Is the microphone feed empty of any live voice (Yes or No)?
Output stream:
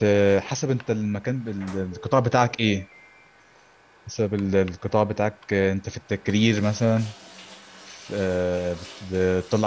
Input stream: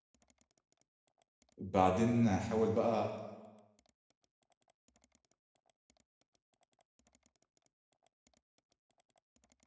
No